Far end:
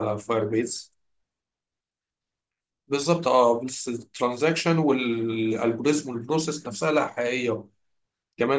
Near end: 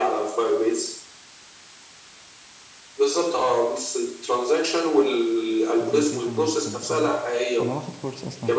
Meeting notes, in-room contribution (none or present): present